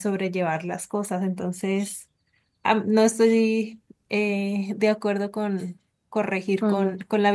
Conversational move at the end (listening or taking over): taking over